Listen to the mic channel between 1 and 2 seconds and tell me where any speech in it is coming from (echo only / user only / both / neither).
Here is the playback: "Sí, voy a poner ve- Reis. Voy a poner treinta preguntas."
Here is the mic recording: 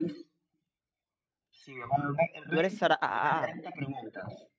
echo only